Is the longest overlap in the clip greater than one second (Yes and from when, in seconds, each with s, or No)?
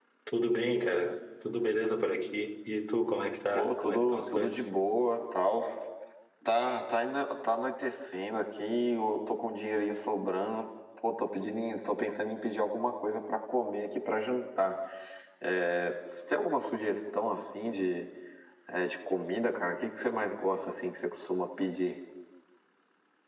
Yes, from 3.5 s